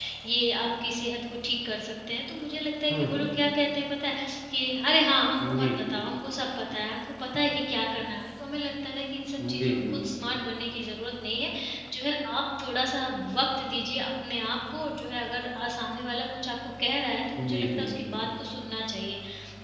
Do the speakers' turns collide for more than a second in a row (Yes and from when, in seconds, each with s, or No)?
No